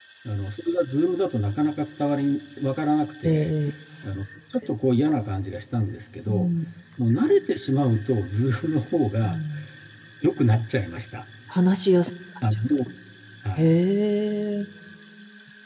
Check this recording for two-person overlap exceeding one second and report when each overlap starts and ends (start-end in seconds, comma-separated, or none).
none